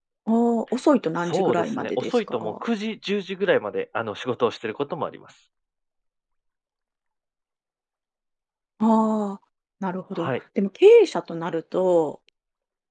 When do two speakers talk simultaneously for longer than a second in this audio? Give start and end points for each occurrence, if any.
1.2-2.5

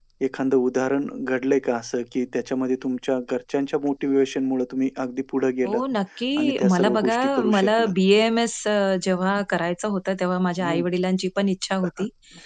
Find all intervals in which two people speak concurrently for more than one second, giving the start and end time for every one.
6.4-7.9

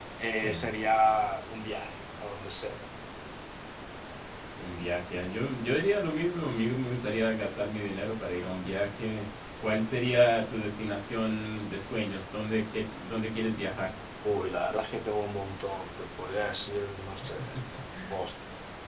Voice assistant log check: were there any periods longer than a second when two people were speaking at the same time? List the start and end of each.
none

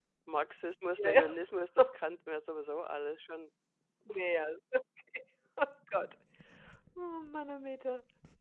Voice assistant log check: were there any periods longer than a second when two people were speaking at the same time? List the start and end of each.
none

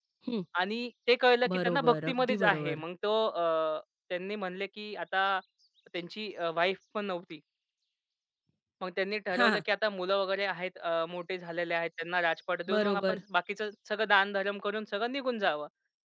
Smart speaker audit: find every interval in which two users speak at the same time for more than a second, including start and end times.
1.5-2.8

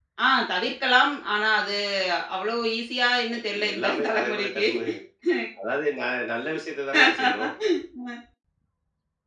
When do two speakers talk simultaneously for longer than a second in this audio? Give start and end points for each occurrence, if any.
3.4-4.7

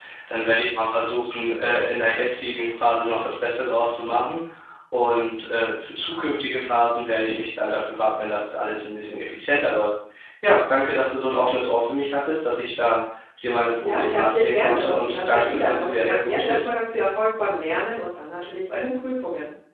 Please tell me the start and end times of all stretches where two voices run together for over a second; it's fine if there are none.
13.8-16.7

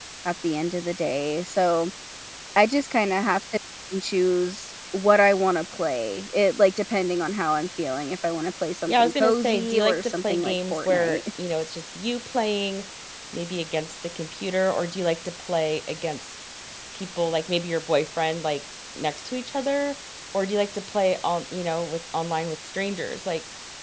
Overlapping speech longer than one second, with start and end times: 8.9-11.2

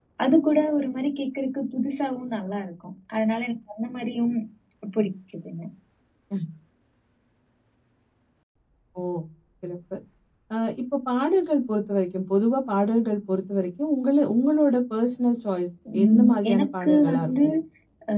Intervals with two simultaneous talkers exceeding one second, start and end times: 16.0-17.3

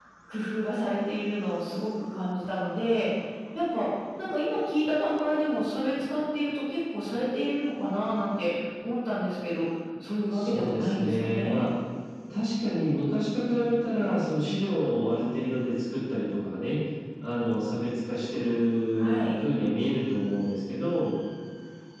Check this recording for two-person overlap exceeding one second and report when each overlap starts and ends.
10.3-11.6

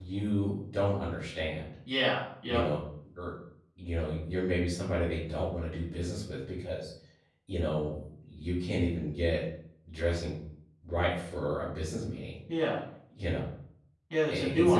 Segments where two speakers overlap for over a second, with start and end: none

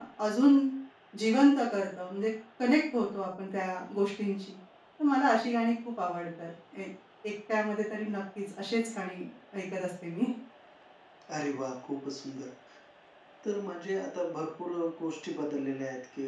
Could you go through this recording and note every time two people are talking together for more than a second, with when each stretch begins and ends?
none

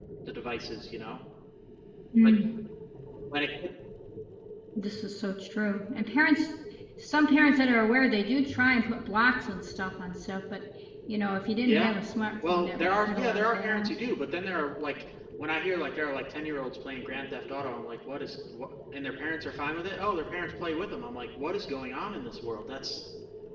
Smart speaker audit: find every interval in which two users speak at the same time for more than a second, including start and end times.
12.5-13.9

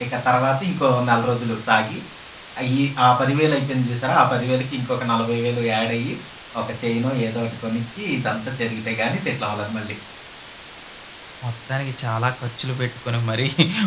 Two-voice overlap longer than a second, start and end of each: none

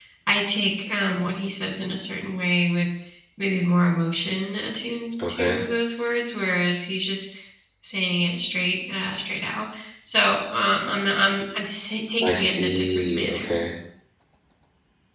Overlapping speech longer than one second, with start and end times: 12.2-13.5

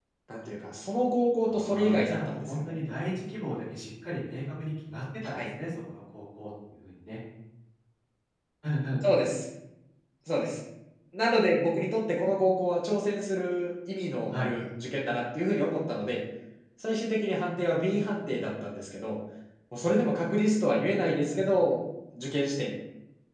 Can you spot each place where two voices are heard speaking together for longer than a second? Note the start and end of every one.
1.4-2.8

